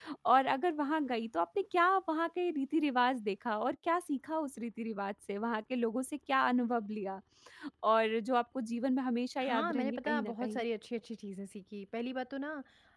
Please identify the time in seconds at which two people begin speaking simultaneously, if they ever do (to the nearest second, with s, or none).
9 s